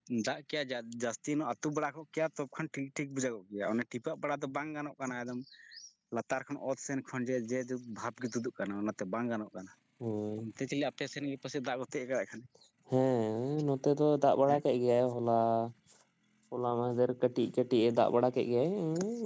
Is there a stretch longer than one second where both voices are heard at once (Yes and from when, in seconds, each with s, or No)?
No